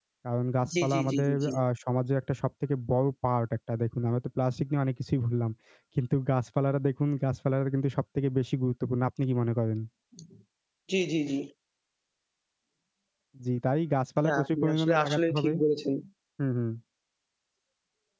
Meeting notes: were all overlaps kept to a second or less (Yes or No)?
No